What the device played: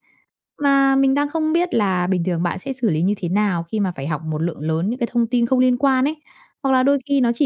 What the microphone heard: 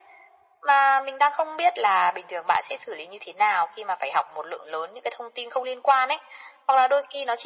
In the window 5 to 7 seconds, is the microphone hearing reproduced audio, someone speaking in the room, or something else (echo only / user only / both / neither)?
echo only